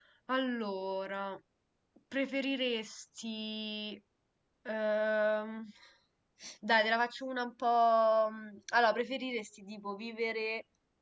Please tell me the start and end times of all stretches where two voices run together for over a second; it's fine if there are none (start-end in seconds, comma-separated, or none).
none